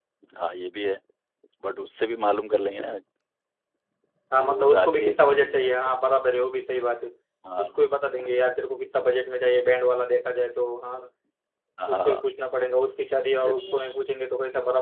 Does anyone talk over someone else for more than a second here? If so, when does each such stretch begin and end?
4.3-5.9

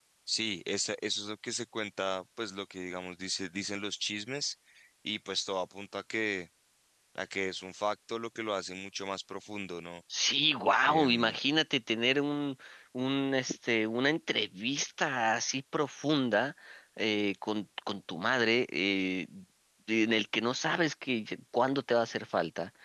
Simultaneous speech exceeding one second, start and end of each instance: none

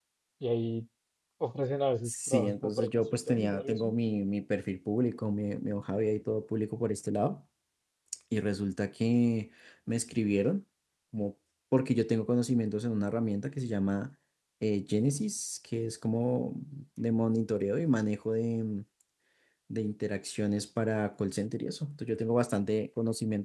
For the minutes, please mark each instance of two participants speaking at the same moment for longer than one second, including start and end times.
2.0-4.0

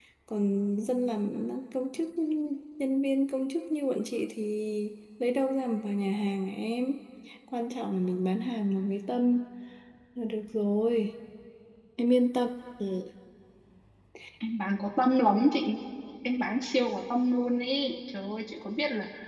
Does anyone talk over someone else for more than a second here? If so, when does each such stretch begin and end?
none

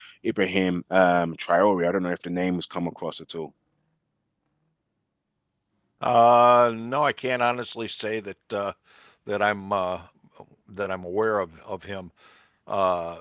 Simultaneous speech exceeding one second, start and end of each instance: none

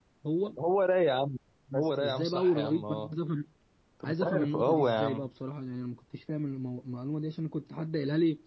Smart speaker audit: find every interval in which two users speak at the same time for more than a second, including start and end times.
1.7-3.1, 4.0-5.3

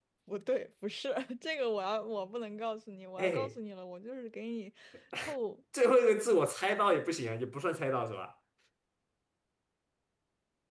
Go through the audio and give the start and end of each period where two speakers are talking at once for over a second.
none

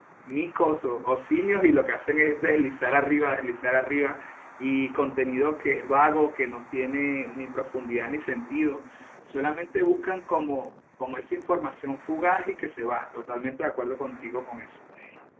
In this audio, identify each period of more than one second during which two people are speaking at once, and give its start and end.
none

